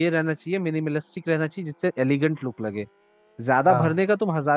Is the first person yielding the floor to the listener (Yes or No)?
No